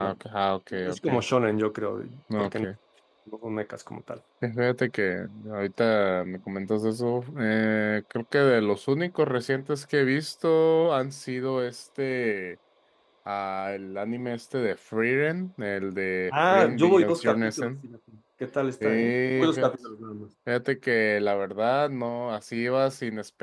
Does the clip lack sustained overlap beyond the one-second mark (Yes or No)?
No